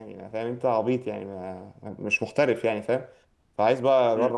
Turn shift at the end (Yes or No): No